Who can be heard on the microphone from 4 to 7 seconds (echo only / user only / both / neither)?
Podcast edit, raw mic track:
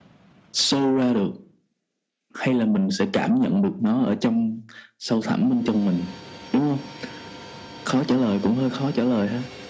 echo only